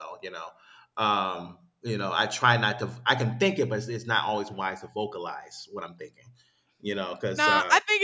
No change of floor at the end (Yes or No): No